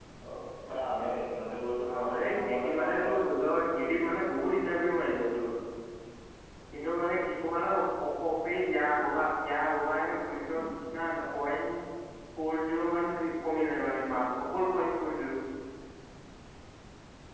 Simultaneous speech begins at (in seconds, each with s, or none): 1.8 s